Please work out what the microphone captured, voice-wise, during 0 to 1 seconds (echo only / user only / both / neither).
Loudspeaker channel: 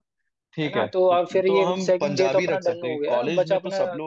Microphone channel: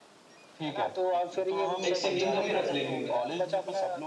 echo only